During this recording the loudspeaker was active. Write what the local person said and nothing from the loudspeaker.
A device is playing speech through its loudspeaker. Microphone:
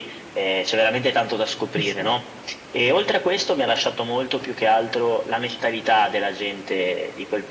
Esatto.

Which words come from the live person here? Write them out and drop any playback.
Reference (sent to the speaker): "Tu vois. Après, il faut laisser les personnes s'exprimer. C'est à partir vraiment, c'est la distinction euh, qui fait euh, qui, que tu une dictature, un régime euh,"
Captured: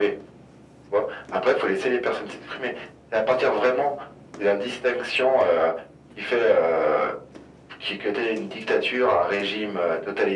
none

